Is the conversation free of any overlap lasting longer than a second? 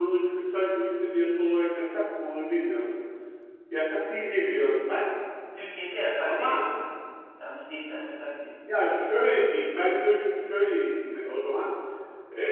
Yes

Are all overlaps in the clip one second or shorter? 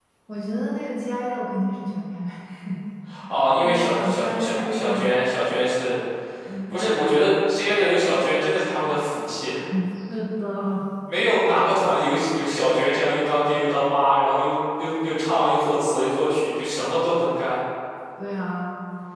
No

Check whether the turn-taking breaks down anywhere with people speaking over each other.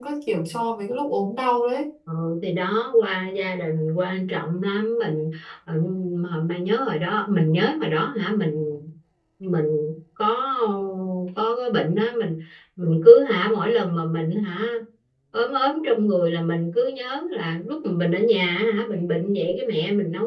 No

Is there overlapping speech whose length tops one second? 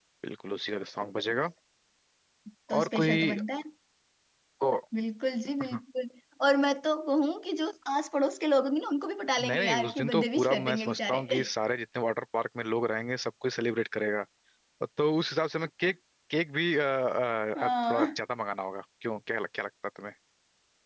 Yes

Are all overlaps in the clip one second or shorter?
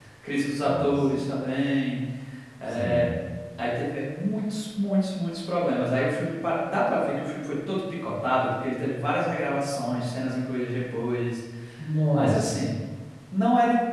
Yes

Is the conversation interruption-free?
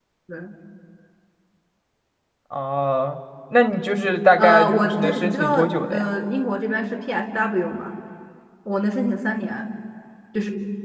No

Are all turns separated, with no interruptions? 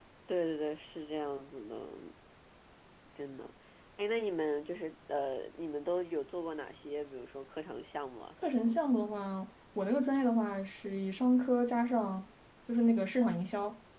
Yes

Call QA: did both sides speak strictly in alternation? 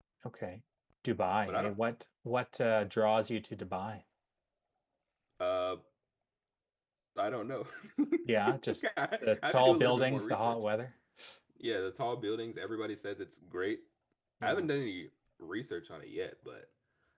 No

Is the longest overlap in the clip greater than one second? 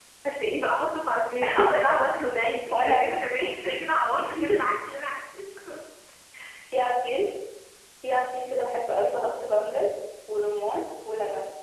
No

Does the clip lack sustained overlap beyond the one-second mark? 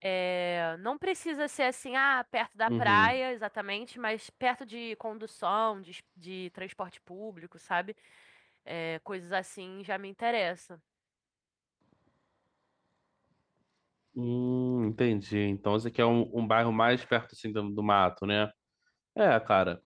Yes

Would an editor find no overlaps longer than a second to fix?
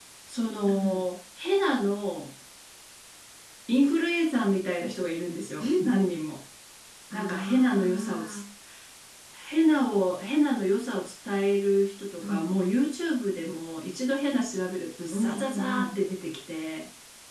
No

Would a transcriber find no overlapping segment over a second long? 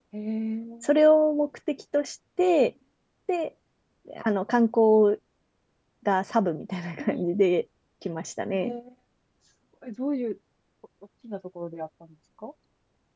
Yes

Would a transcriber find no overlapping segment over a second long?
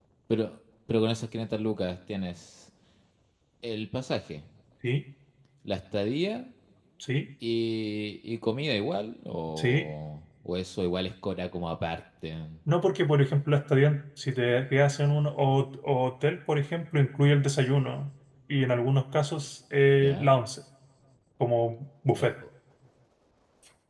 Yes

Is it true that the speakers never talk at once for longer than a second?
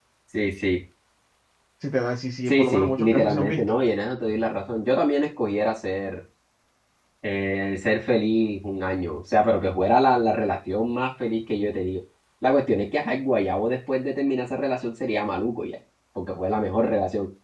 No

